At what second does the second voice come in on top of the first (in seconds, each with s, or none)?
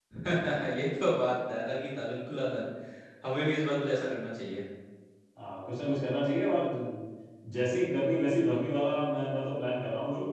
none